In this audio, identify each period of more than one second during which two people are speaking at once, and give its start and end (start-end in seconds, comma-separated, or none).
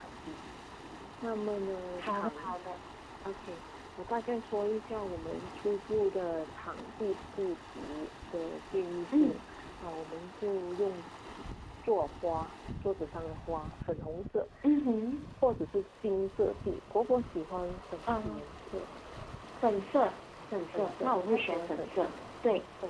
20.7-22.1